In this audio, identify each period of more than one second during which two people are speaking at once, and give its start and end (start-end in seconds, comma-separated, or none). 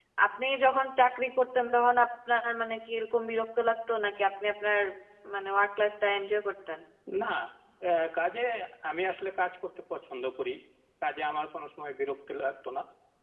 none